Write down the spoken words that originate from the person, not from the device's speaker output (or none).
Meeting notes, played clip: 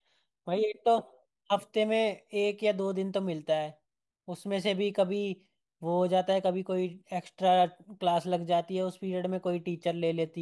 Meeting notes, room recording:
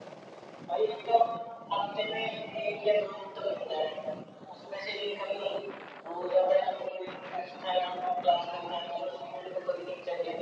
none